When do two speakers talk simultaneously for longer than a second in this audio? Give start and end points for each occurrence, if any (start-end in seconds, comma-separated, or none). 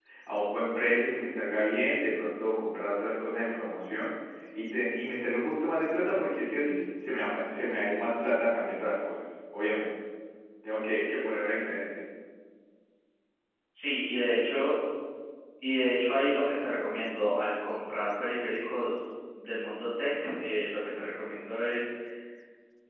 none